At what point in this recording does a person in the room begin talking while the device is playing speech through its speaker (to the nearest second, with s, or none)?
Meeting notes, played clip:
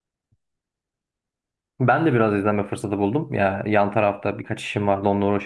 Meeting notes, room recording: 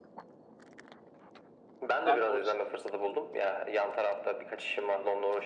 2 s